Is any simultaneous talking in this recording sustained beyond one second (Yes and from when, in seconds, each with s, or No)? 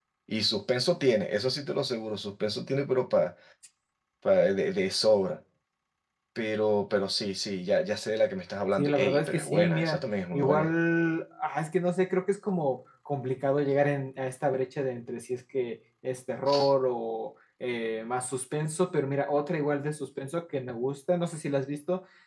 Yes, from 8.8 s